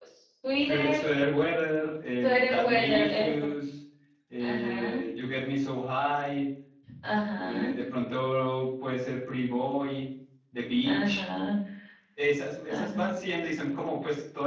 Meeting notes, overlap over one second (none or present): present